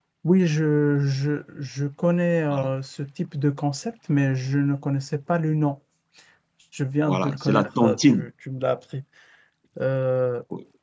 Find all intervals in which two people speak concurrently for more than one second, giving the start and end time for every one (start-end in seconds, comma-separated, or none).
7.1-8.3